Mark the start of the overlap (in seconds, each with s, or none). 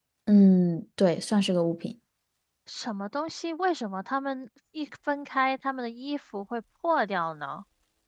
none